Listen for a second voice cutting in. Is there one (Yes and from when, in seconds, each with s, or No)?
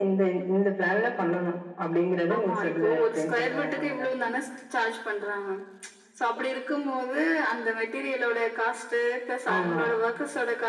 Yes, from 2.4 s